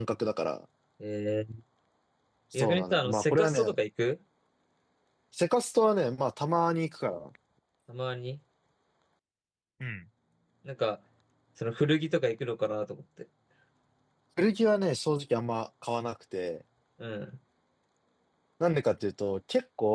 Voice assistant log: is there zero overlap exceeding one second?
No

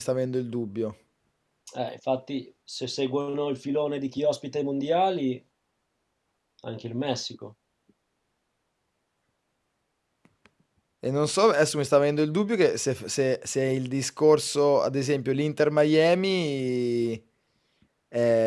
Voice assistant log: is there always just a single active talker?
Yes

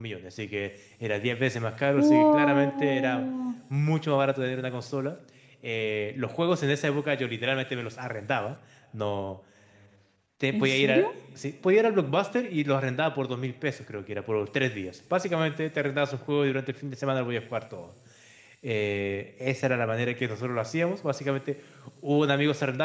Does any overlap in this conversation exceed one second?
Yes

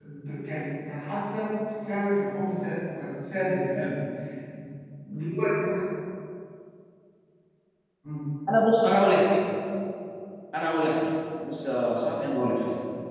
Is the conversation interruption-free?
Yes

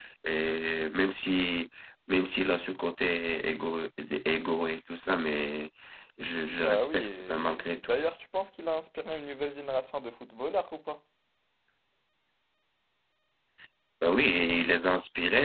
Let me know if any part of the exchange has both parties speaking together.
Yes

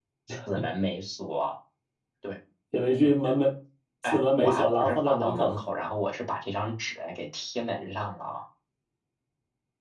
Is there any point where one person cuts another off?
Yes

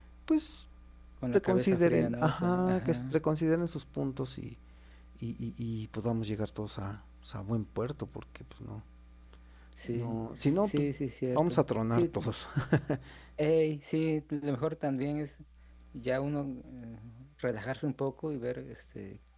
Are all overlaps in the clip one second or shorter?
No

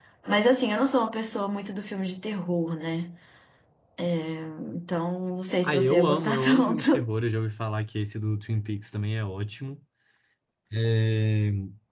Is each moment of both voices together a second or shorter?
No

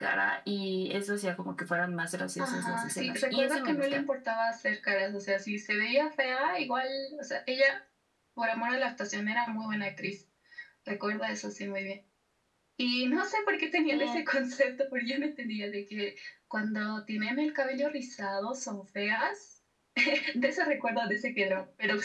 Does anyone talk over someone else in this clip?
Yes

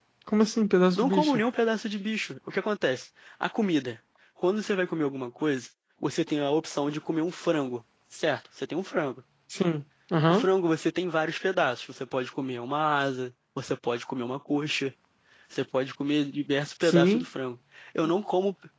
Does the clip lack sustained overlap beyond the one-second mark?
Yes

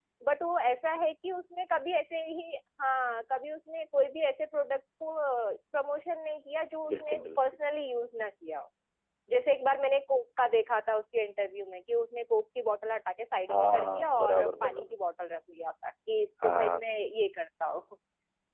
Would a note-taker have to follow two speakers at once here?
Yes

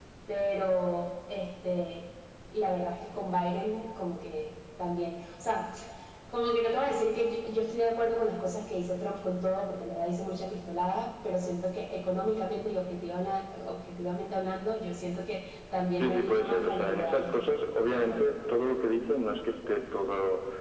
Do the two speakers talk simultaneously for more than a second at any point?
Yes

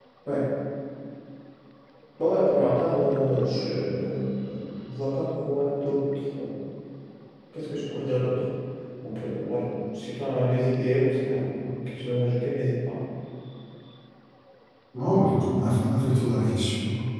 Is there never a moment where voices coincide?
Yes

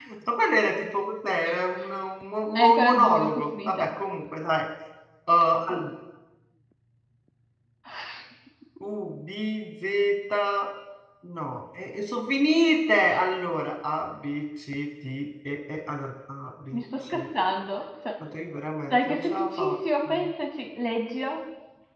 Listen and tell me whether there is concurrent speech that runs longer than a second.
Yes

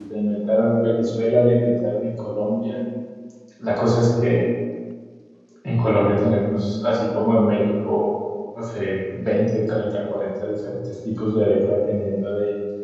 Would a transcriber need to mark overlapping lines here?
No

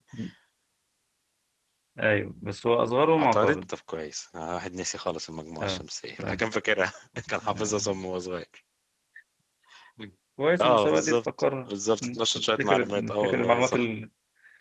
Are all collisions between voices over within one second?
No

